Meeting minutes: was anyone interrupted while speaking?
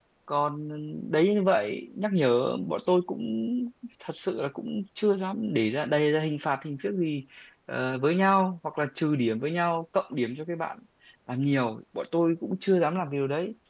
No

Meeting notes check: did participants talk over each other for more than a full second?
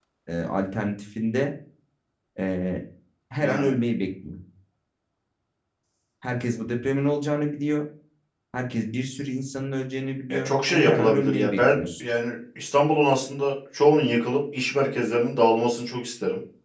Yes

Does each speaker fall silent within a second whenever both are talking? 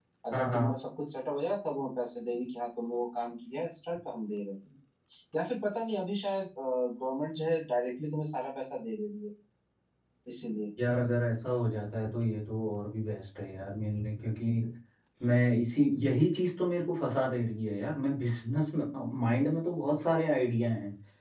Yes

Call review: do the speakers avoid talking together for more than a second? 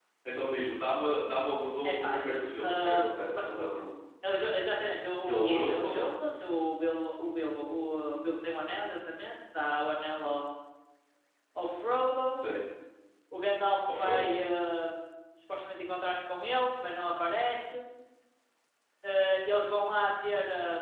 No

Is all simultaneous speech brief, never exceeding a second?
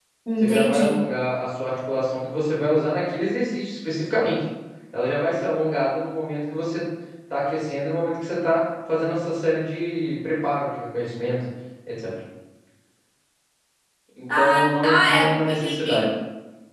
No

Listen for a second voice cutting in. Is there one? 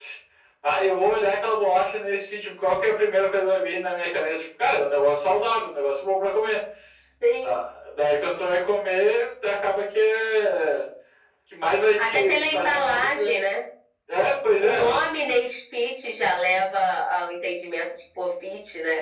Yes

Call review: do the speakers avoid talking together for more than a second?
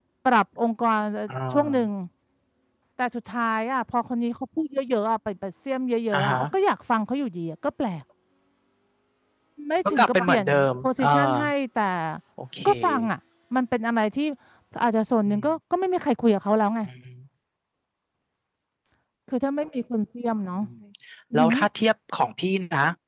No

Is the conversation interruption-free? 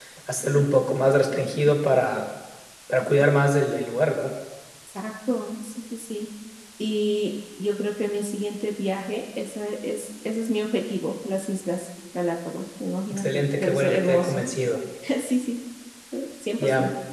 No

